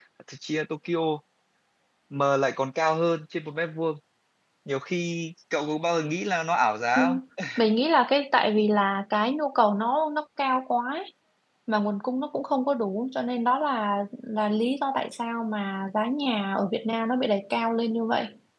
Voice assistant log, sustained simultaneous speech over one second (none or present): none